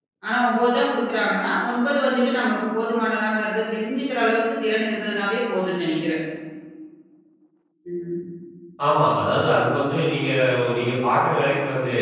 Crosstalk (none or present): none